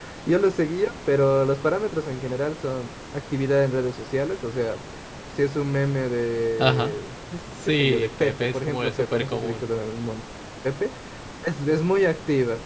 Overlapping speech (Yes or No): Yes